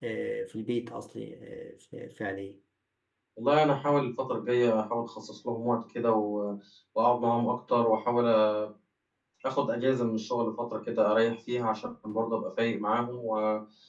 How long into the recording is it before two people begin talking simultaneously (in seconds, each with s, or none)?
none